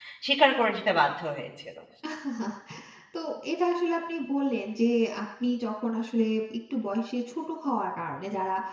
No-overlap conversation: Yes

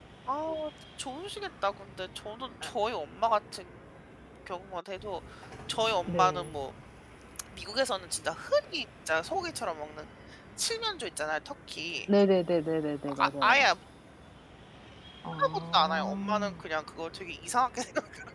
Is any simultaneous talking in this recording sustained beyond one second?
Yes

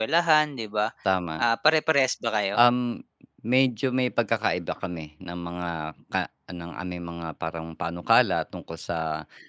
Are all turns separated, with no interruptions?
Yes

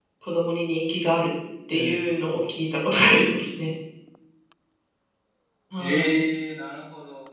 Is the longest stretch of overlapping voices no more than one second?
Yes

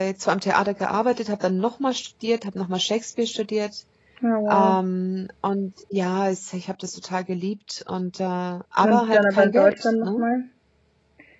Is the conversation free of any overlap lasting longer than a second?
No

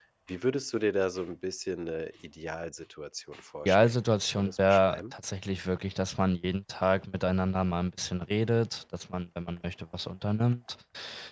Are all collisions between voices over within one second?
No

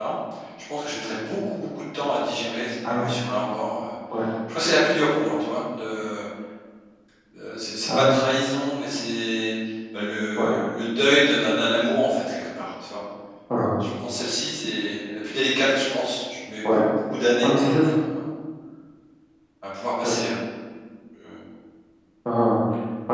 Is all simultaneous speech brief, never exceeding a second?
Yes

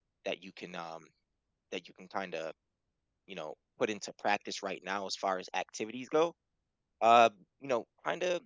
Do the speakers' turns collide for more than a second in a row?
No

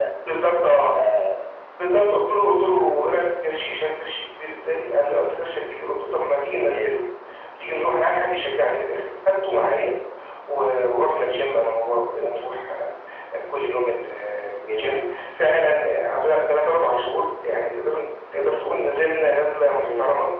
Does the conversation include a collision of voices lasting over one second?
No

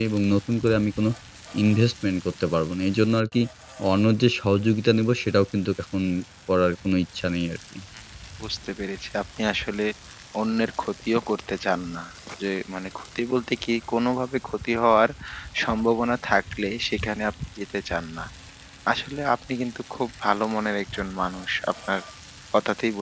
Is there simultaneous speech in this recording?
No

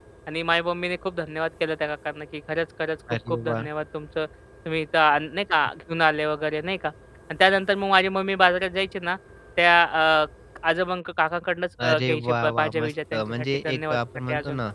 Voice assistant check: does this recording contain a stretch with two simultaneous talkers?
Yes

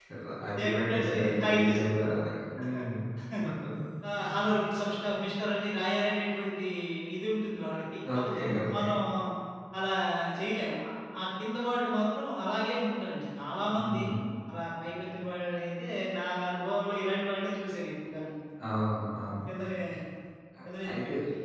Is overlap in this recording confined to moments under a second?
No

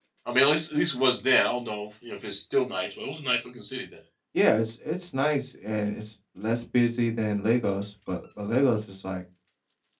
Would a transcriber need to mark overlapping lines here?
No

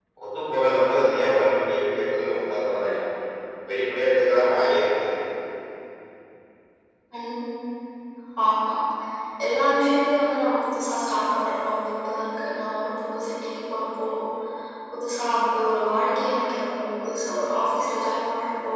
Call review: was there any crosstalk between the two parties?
No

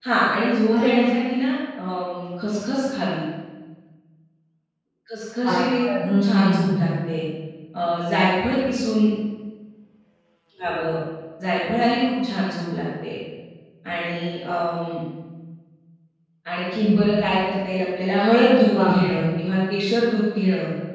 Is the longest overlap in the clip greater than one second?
Yes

